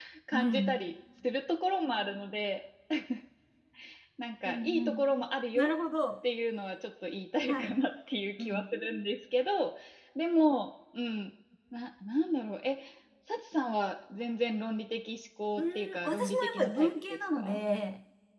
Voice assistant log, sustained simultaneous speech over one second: present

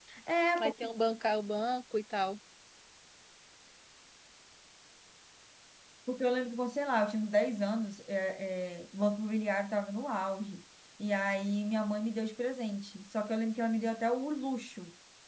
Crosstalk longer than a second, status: none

